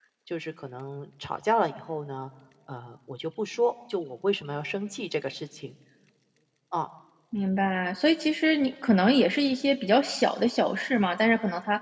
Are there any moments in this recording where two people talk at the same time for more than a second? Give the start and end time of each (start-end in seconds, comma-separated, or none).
none